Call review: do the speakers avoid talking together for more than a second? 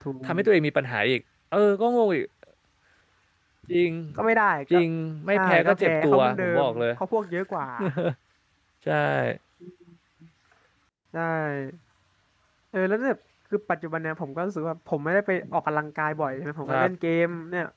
No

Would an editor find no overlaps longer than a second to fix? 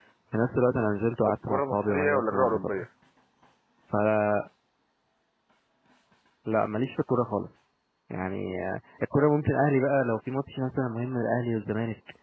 No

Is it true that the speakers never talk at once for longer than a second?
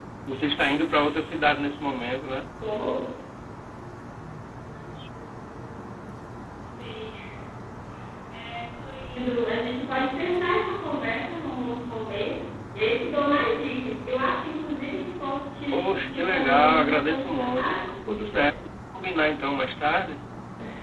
No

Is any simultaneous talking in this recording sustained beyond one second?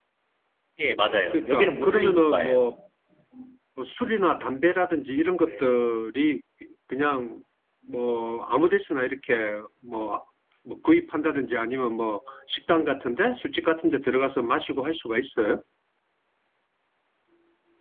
Yes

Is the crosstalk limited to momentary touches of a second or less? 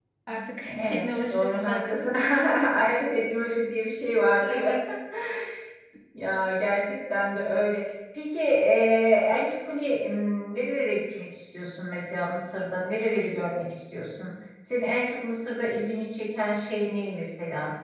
No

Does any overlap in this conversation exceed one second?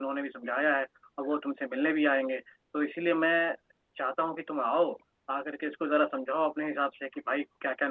No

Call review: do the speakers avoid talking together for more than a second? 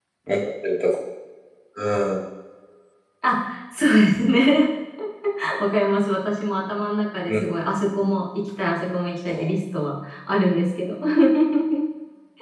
Yes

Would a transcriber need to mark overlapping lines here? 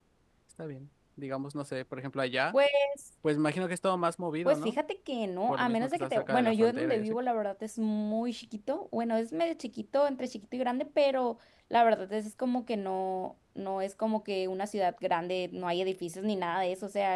Yes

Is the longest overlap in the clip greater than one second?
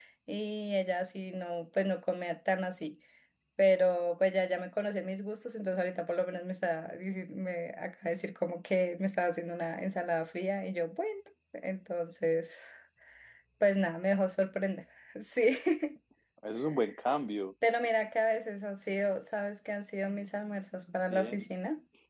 No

